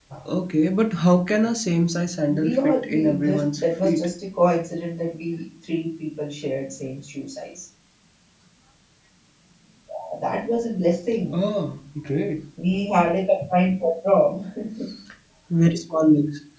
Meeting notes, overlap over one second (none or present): present